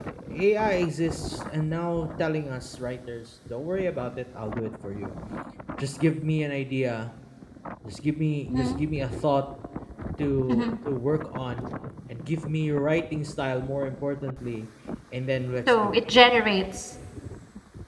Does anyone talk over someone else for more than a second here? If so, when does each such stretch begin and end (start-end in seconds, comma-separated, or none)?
none